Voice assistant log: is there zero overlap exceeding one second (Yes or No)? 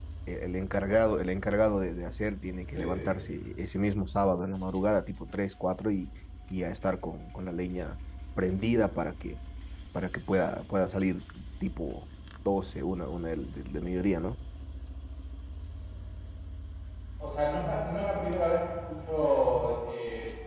Yes